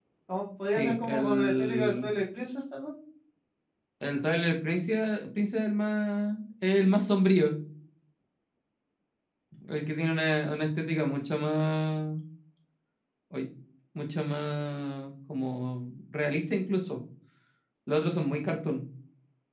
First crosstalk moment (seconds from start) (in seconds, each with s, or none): 0.8 s